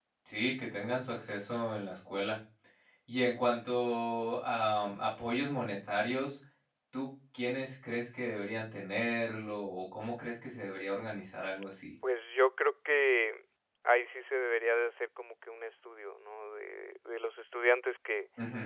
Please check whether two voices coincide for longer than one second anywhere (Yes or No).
No